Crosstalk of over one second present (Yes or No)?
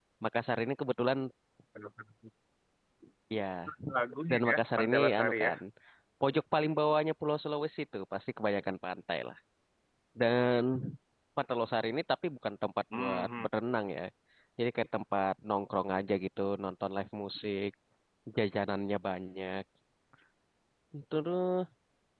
Yes